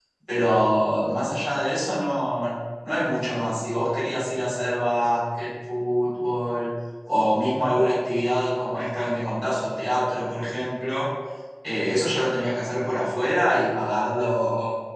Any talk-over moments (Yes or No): No